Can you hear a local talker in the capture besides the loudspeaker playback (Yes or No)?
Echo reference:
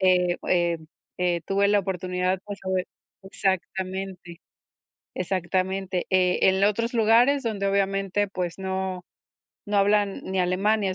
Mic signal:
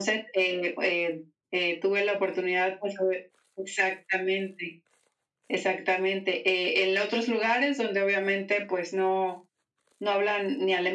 No